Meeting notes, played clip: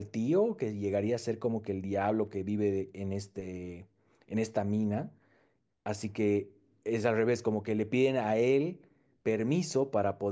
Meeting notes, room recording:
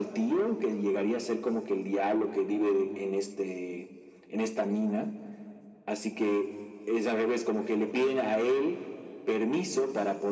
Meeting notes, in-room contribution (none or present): none